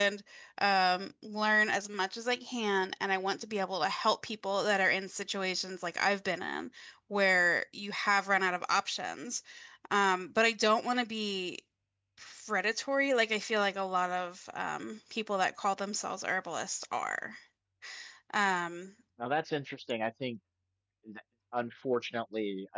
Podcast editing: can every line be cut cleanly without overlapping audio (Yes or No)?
Yes